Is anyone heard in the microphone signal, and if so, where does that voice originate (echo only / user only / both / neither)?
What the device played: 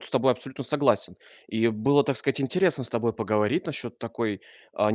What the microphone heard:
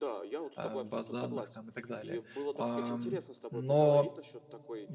both